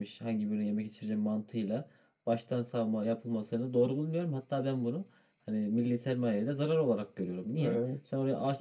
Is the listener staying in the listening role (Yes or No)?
Yes